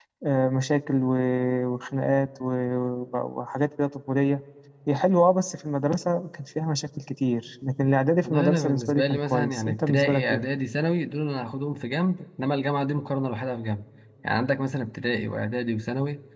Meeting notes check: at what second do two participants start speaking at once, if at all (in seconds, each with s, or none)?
8.2 s